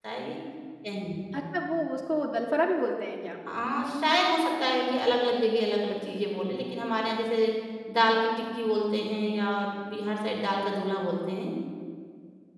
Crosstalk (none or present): none